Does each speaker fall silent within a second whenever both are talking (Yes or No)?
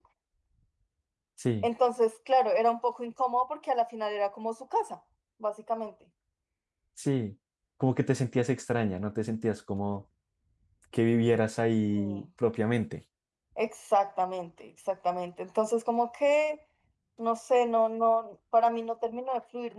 Yes